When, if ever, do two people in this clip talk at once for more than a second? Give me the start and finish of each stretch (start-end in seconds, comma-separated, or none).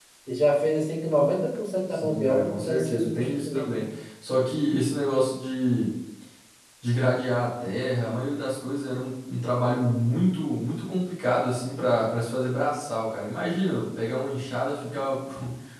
1.9-3.8